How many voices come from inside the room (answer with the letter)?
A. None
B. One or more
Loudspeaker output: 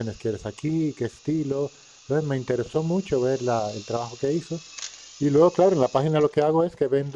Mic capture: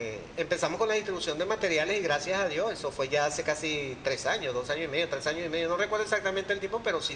B